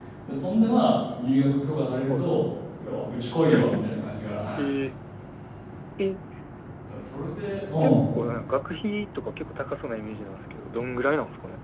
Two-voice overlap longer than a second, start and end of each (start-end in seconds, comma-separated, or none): none